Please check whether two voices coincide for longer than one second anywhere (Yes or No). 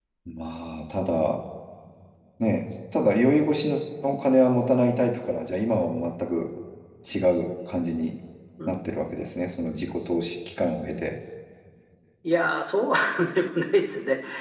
No